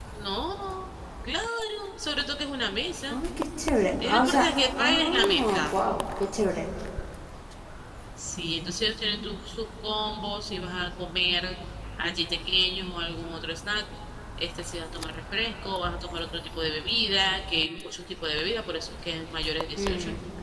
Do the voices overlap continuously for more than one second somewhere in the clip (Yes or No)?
Yes